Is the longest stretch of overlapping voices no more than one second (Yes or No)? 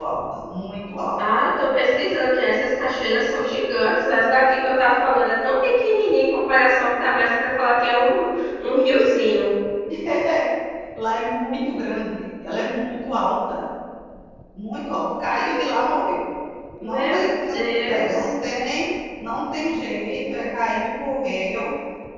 No